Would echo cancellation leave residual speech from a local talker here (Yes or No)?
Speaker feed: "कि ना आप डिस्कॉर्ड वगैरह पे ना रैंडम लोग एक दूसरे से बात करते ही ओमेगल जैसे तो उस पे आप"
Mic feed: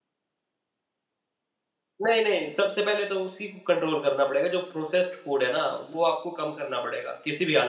Yes